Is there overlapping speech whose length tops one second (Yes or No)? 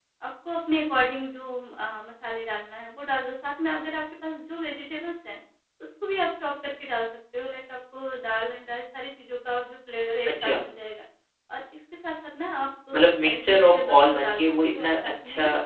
Yes